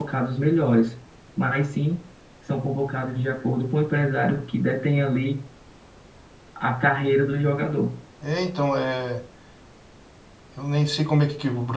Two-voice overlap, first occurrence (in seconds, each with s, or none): none